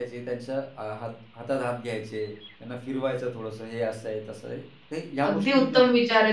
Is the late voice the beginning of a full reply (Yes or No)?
Yes